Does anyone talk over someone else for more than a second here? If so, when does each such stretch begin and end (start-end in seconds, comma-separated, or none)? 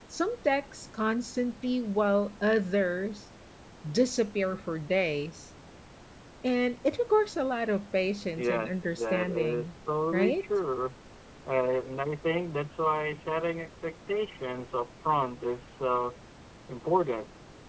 8.5-9.7